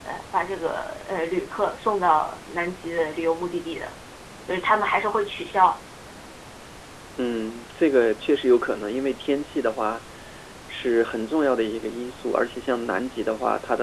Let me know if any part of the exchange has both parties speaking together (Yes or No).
No